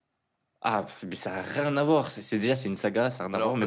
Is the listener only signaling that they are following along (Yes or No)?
No